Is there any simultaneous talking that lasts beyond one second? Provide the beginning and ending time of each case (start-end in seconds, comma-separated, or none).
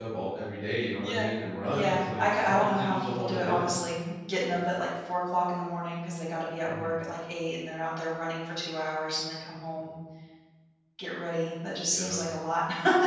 1.7-3.7